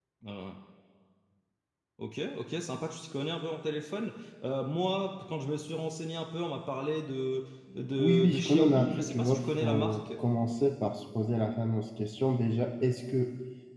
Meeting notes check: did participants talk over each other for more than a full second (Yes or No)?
Yes